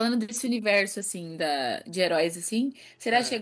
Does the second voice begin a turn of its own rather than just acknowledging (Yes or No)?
No